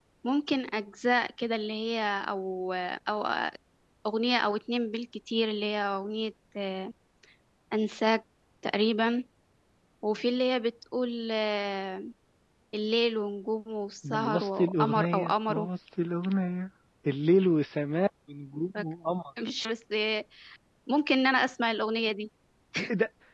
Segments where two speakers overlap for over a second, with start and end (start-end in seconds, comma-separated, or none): 14.1-15.7